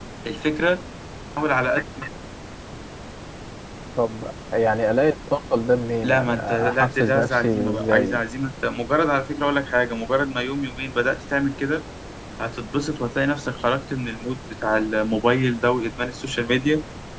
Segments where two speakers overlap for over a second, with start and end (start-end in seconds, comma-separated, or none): 6.0-8.2